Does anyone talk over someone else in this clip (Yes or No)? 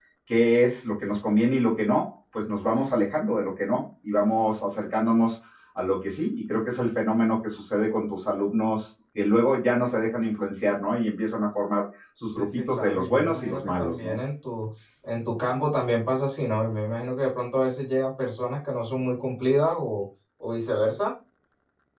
Yes